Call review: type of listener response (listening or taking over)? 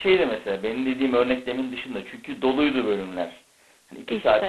listening